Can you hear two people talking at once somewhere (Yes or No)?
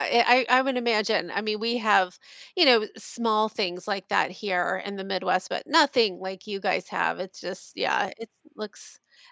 No